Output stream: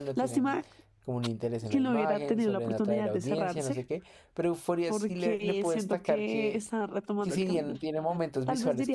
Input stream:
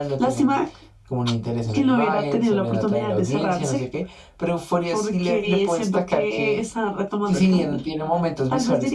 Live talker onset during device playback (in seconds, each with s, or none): none